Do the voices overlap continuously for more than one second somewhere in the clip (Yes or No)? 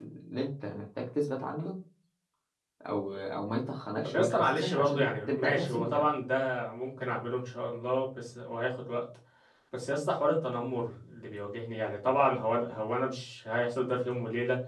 Yes